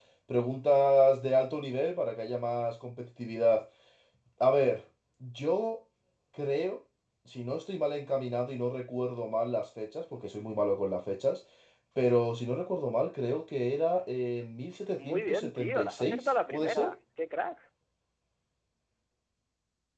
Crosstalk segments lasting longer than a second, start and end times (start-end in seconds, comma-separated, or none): 15.0-17.0